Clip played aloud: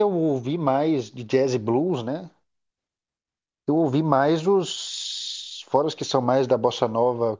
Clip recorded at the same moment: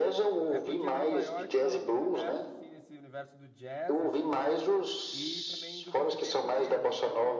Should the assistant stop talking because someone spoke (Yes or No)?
Yes